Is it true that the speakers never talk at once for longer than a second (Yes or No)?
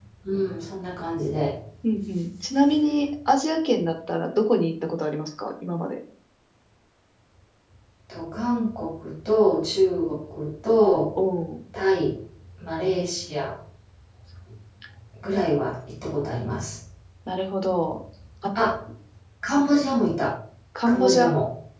Yes